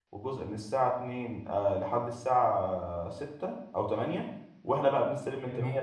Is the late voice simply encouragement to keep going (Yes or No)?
Yes